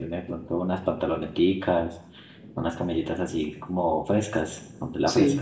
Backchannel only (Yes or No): No